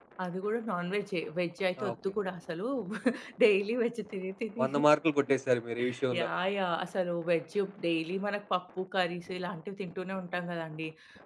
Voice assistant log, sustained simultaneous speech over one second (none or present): none